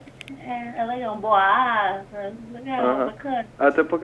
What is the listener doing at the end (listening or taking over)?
taking over